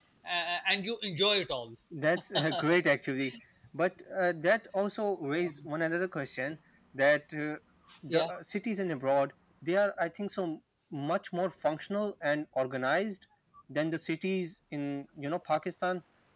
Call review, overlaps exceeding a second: none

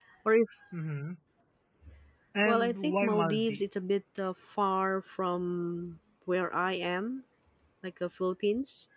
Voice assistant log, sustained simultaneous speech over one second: present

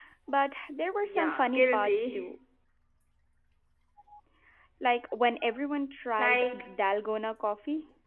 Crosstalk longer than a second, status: present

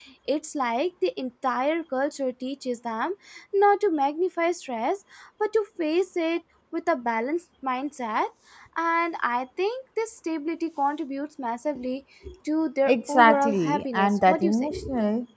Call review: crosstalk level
present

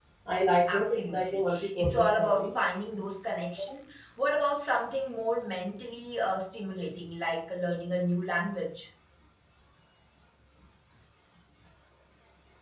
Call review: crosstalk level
present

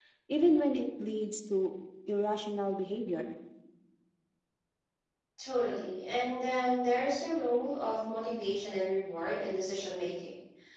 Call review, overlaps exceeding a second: none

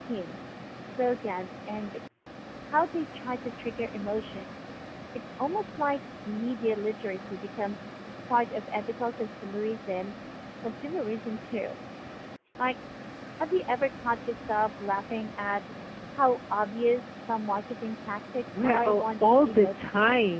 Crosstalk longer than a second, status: present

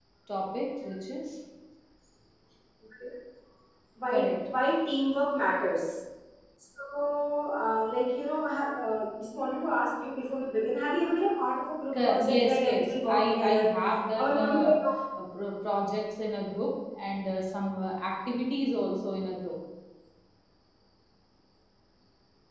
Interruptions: present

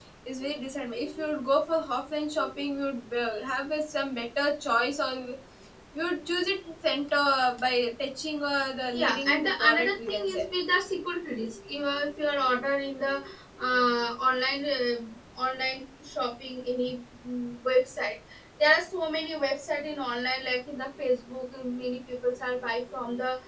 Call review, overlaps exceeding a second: present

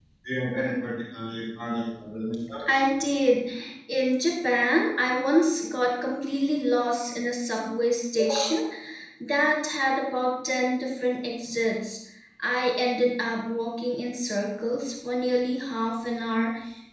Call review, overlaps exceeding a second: none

